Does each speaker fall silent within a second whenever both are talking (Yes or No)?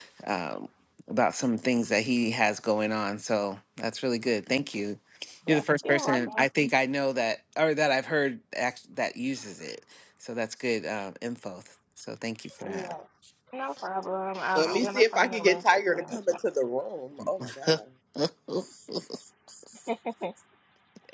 No